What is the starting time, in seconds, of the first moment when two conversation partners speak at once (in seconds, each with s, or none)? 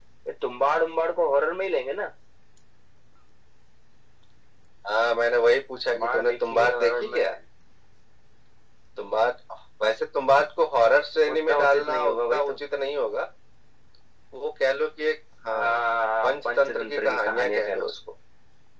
5.9 s